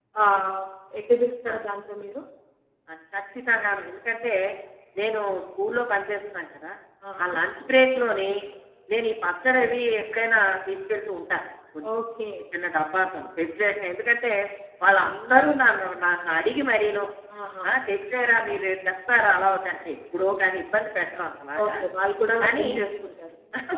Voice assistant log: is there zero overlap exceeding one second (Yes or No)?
Yes